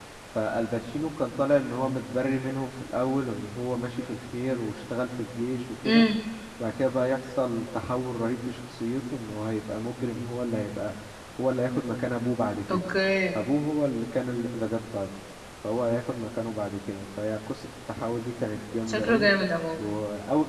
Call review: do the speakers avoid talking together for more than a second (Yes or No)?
Yes